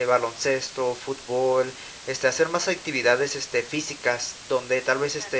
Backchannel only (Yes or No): Yes